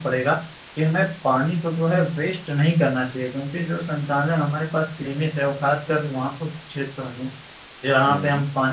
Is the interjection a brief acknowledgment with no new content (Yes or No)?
Yes